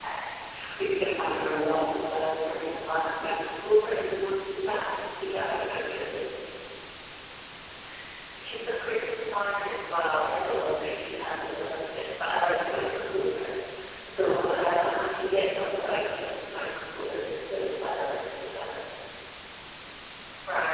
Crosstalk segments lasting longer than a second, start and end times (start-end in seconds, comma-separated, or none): none